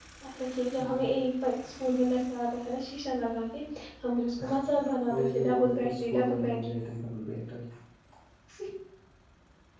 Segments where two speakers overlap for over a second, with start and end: 5.1-6.7

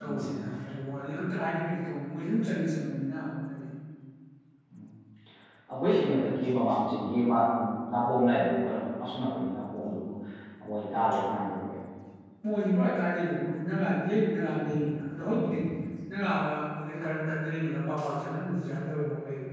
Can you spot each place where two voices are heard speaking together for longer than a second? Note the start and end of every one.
none

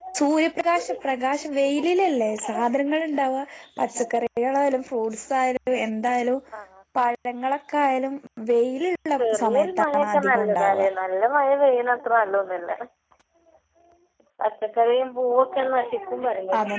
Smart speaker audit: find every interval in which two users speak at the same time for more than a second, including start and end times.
9.2-10.6

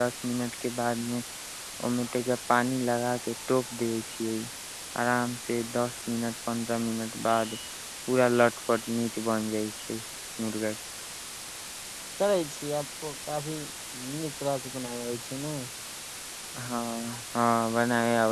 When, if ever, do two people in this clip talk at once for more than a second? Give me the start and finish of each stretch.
none

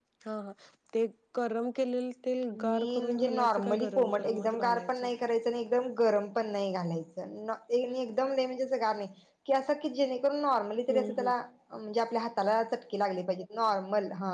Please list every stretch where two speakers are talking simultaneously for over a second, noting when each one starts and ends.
2.5-4.9

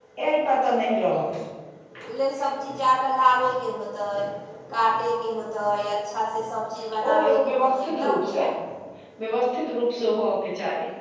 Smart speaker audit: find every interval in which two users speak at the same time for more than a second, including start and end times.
7.0-8.3

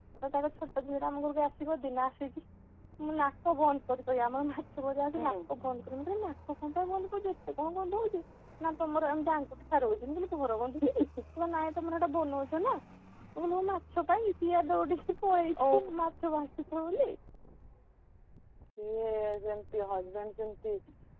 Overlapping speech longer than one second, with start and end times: none

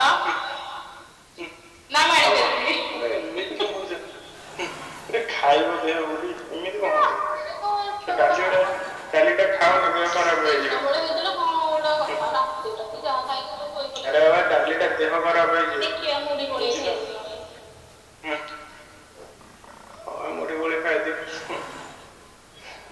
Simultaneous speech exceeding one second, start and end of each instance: none

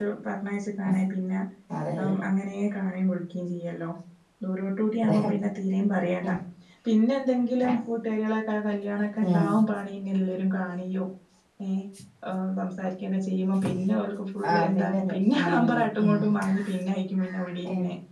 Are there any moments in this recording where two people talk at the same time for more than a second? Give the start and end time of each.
14.5-16.1

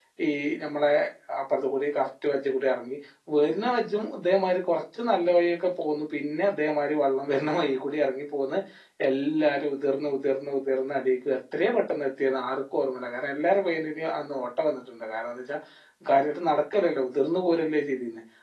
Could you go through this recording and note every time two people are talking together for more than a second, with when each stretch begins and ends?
none

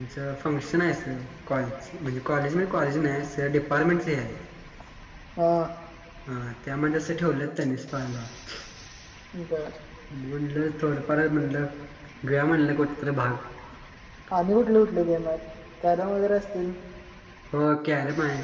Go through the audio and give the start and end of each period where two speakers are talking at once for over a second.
none

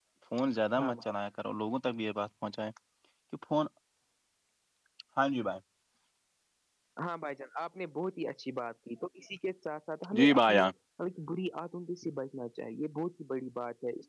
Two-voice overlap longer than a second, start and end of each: none

